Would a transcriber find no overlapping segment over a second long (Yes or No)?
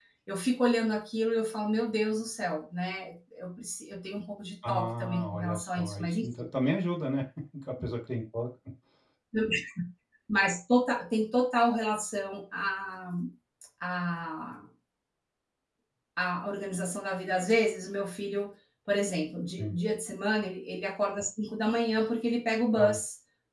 No